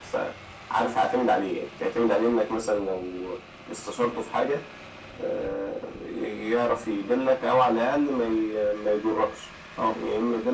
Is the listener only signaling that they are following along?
Yes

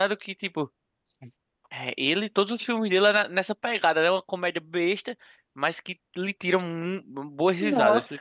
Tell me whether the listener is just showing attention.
No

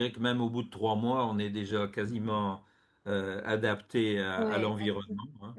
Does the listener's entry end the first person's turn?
Yes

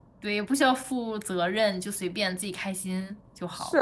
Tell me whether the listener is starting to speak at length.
Yes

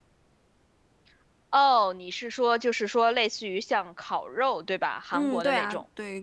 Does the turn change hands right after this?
Yes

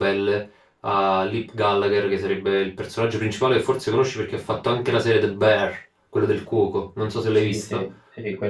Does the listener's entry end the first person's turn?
Yes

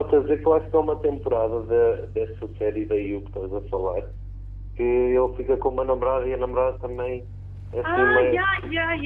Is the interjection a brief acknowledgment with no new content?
No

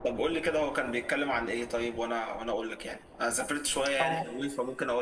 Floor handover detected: No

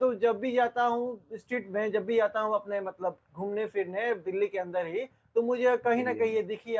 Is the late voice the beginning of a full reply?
No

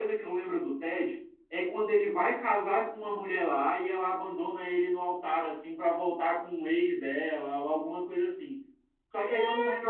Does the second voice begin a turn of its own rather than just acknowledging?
No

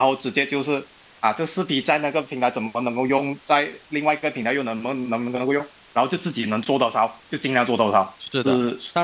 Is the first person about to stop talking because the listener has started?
Yes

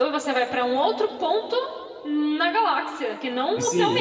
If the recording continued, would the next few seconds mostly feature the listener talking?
Yes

